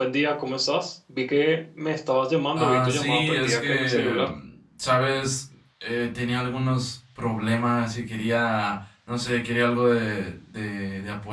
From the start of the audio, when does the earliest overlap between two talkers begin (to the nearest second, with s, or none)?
3 s